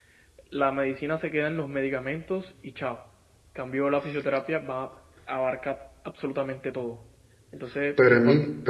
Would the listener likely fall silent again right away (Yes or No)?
No